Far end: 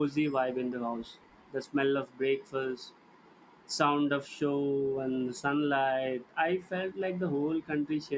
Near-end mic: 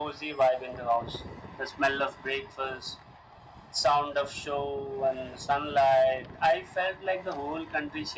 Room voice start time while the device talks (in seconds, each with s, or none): none